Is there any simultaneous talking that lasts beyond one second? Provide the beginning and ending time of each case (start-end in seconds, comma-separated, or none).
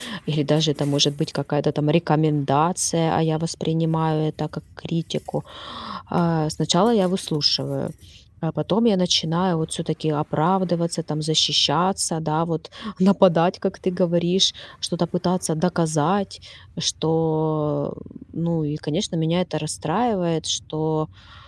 none